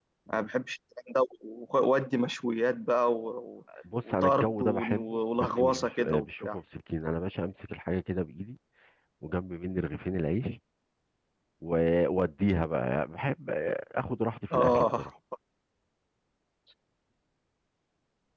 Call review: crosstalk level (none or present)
present